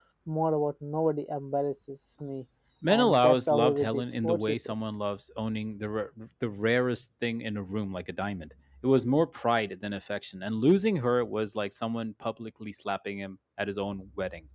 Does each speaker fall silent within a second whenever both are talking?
No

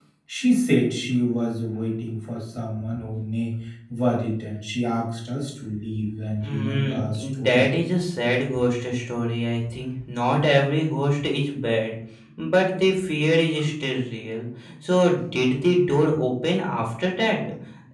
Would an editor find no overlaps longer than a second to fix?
No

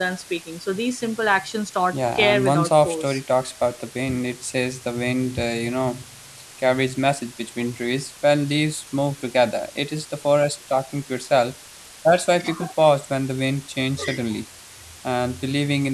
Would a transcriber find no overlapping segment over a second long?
No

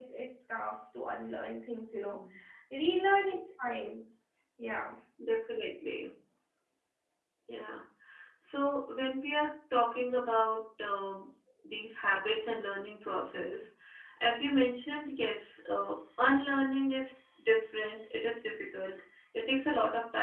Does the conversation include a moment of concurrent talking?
No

